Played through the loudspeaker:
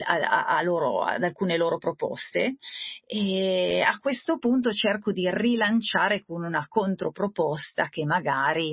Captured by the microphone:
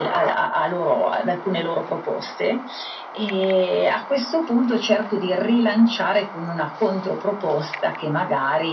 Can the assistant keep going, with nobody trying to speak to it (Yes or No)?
Yes